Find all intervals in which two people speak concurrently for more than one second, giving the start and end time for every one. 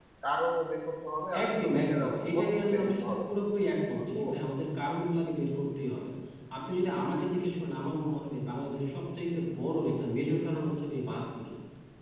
1.4-3.2

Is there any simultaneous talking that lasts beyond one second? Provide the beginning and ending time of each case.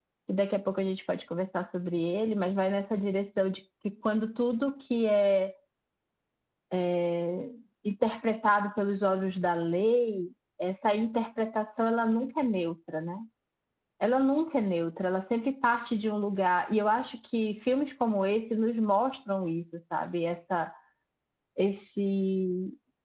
none

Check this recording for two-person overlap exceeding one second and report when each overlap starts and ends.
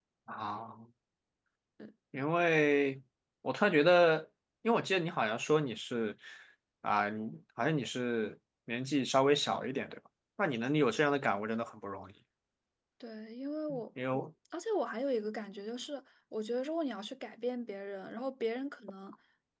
none

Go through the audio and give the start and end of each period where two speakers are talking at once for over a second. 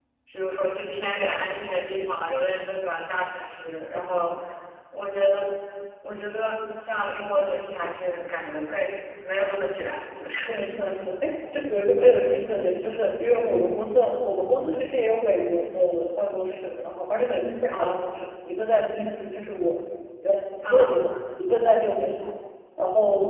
none

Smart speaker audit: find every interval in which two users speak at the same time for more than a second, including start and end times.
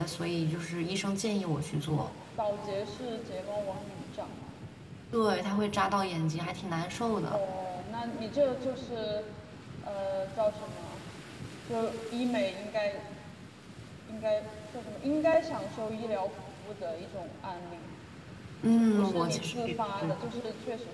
18.7-20.1

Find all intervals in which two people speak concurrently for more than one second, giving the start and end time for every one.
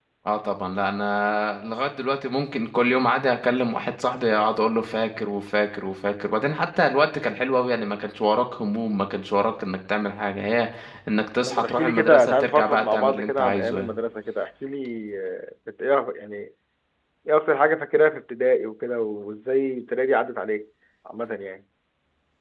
11.4-13.9

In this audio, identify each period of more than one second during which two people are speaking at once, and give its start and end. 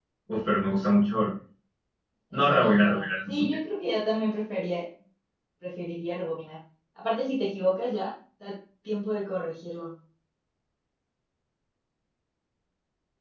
2.3-3.6

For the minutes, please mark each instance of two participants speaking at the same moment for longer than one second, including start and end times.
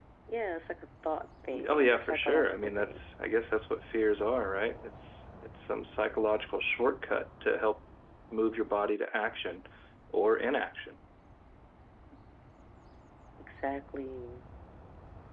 1.7-3.0

